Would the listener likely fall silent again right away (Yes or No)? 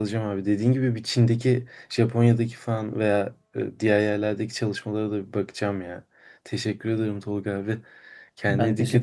No